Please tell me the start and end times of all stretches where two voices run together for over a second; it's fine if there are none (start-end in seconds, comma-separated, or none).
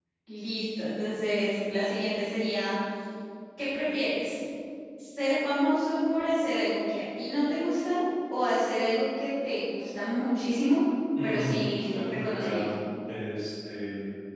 11.2-12.7